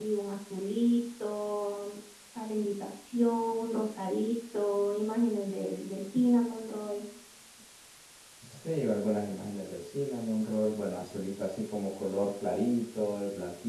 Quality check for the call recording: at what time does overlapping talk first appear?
none

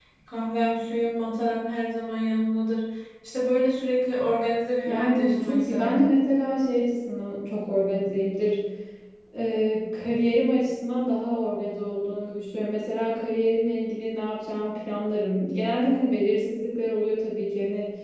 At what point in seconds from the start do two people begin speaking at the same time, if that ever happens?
4.8 s

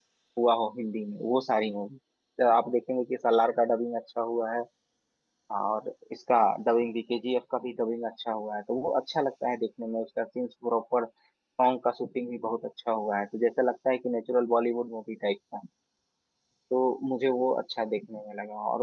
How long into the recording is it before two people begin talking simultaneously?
none

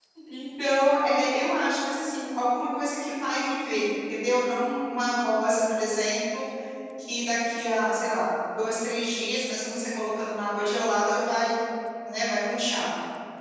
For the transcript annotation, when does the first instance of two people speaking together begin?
none

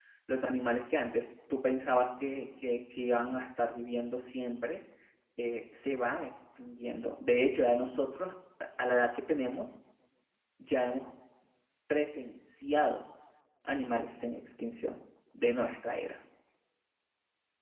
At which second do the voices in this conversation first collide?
none

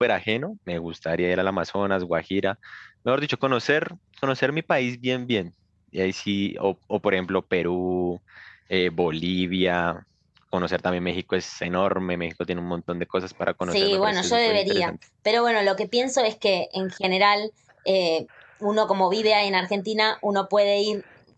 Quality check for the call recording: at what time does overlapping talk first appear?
13.7 s

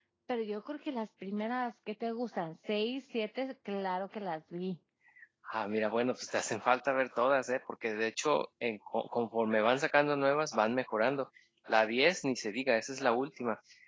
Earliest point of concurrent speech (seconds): none

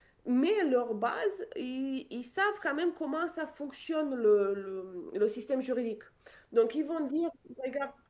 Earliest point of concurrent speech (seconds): none

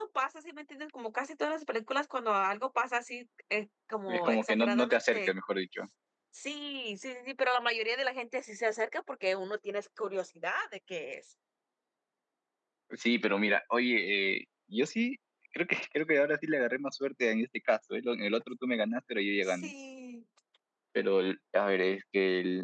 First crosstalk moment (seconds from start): 4.1 s

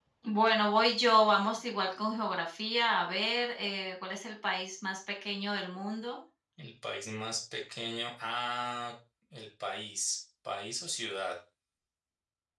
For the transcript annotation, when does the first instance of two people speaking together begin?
none

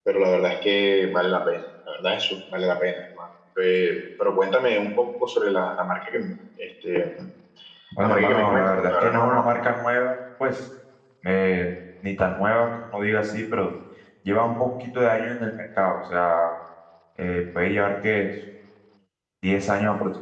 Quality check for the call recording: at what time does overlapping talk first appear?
8.0 s

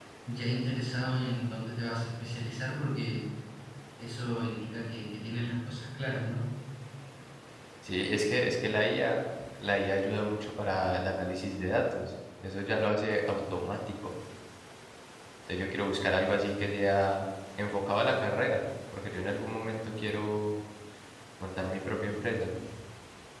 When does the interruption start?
none

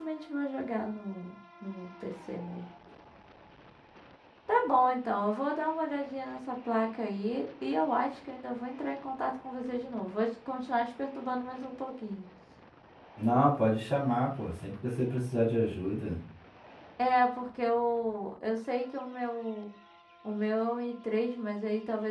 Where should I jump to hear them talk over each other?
none

